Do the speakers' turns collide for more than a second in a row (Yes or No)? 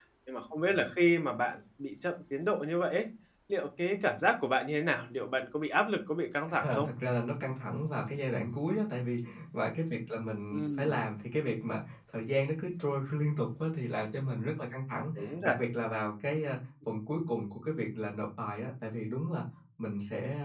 No